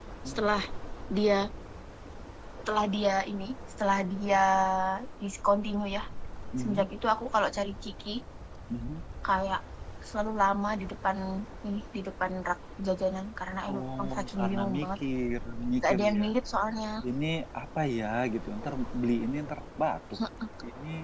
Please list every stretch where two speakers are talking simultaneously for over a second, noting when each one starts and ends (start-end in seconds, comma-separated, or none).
13.7-15.0